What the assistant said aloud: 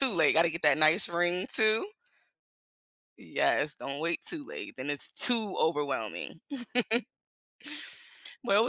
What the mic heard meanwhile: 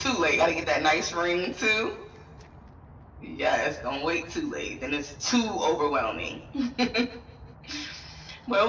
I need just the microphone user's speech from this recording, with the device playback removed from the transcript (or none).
none